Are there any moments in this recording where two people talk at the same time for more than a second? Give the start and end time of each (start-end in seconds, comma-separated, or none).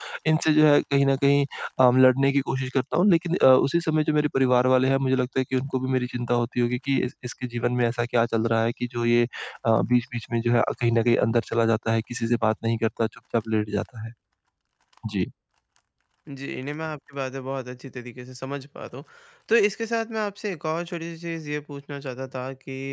none